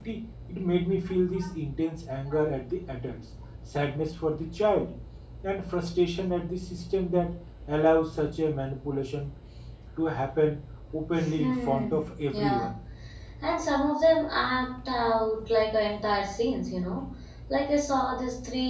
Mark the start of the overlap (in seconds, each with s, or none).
11.2 s